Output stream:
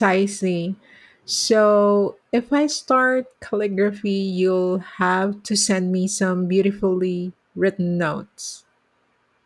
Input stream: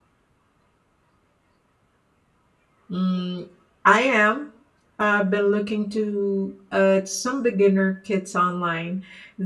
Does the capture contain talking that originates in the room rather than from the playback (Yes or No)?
Yes